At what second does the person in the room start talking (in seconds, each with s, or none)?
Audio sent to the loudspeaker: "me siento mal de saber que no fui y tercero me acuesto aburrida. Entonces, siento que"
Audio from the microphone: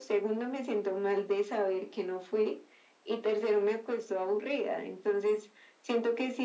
none